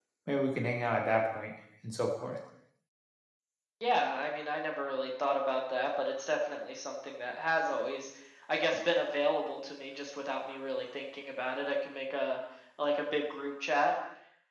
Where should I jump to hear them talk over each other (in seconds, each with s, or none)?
none